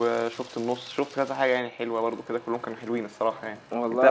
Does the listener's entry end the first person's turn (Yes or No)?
No